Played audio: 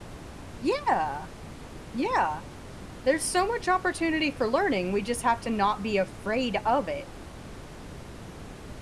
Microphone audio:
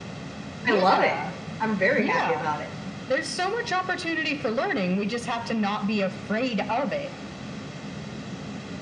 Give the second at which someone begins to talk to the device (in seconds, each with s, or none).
0.7 s